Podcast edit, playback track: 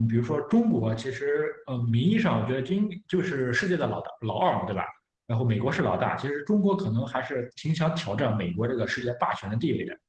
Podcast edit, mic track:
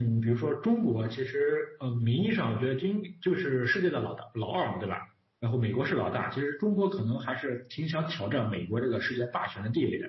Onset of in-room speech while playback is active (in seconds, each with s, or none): none